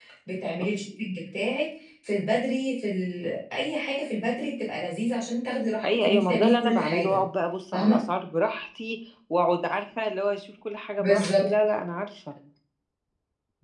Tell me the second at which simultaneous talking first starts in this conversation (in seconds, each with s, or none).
5.9 s